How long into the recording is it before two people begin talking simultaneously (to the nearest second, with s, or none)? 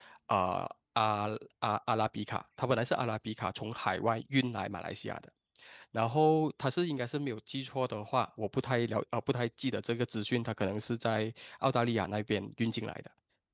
none